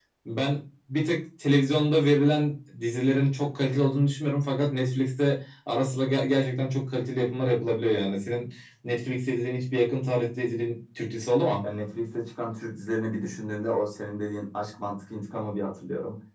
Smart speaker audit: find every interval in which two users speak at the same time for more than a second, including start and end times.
none

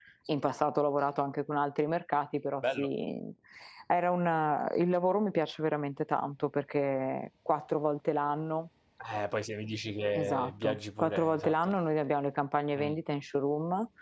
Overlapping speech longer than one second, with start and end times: 10.1-11.7

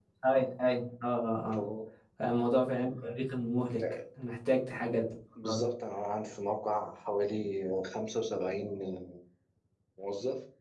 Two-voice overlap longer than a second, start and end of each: none

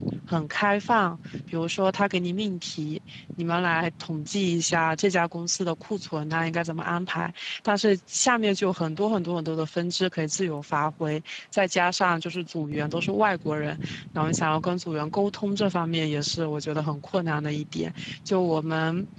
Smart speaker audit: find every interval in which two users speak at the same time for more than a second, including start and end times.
none

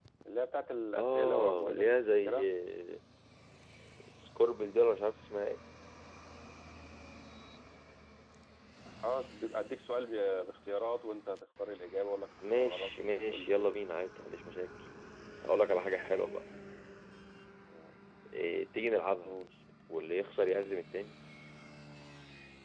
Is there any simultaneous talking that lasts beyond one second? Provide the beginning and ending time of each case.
1.0-2.5, 12.5-13.8

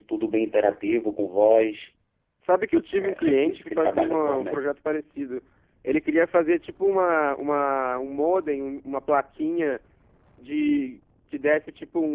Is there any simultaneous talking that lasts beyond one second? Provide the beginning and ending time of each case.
3.0-4.6

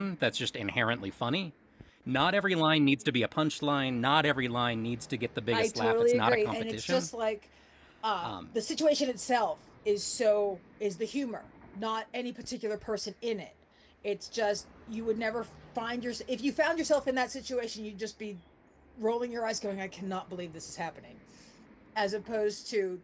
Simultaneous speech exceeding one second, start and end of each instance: 5.5-7.1

